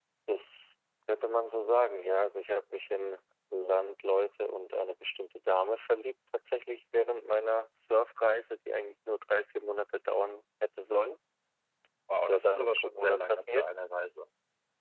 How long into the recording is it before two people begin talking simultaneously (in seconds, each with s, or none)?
12.2 s